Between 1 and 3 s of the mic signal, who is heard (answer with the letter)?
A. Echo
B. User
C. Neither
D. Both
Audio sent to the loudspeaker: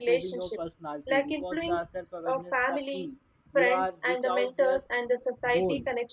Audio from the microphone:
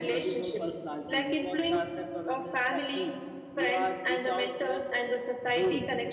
A